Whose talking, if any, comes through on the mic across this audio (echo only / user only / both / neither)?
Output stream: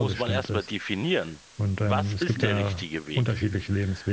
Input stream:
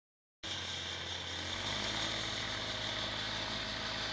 neither